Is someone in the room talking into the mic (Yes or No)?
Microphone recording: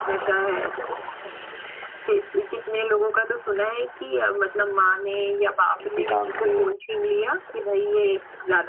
Yes